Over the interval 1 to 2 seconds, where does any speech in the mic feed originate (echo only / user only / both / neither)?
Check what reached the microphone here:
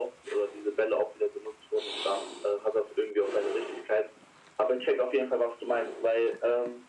echo only